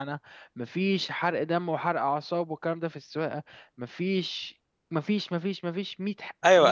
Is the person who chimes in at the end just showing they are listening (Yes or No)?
No